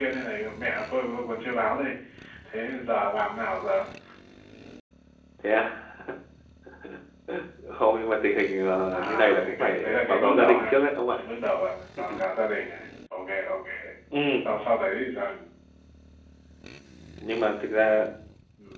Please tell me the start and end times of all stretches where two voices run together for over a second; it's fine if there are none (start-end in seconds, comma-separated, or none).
8.9-10.7